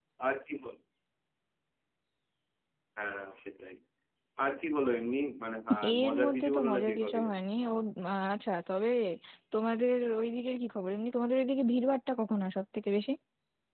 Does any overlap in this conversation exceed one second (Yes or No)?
Yes